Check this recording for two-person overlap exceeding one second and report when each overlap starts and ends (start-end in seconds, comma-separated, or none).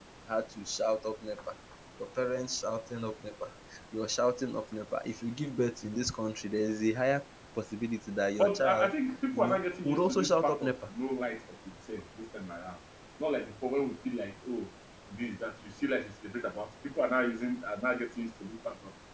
9.3-10.9